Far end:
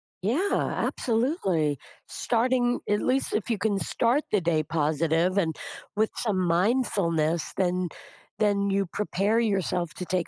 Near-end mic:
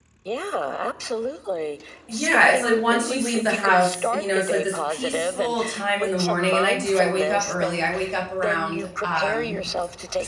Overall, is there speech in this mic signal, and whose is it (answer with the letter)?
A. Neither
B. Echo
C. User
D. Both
D